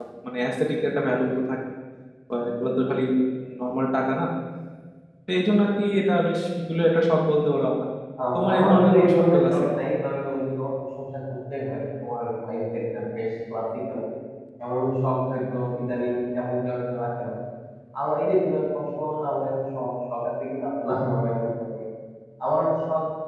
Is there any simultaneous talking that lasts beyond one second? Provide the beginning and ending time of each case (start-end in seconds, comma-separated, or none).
8.3-9.7